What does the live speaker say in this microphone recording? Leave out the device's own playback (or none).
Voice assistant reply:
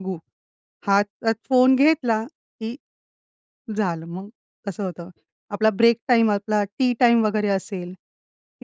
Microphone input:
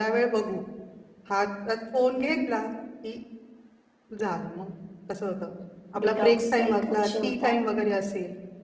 डिटॉक्सचा एक विषय होता,